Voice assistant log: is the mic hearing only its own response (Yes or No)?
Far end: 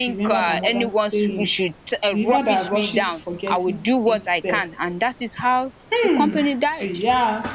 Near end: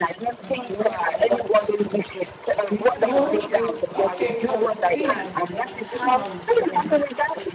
No